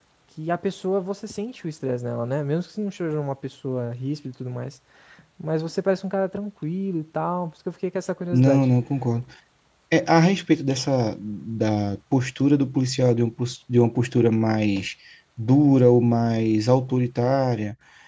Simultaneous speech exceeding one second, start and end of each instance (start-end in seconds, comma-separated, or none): none